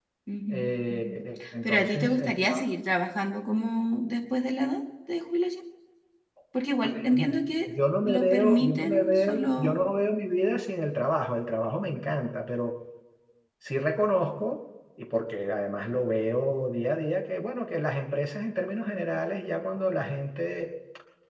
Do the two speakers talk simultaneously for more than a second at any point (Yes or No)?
Yes